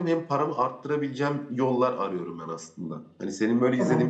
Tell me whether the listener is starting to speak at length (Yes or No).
Yes